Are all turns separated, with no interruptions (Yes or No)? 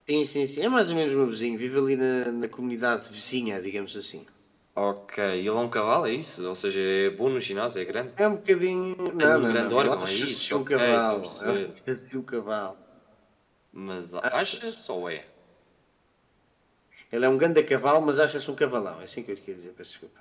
No